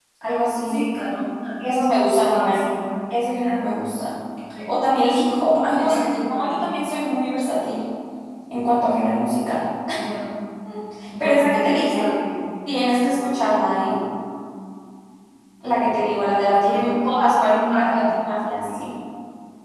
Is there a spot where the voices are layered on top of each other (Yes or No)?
Yes